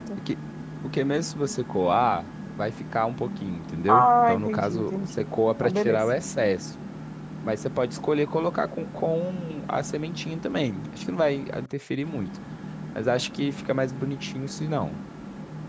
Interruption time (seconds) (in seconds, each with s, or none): 3.9 s